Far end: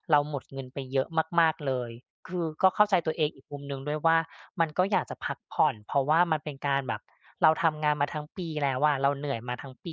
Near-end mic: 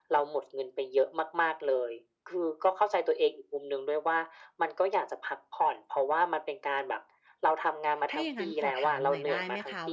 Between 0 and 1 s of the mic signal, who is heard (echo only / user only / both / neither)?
echo only